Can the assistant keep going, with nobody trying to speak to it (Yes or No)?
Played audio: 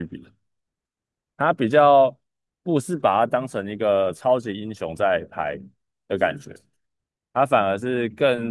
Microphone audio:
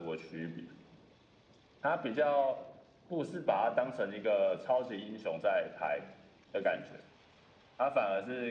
Yes